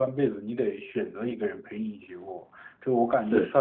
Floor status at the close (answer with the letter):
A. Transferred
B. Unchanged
B